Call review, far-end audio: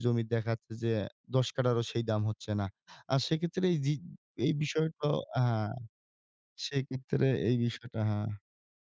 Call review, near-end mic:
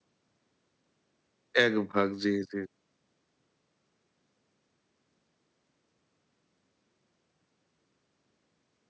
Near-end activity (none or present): present